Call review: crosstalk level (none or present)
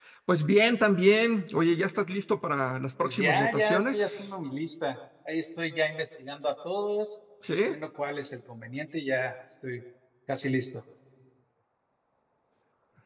present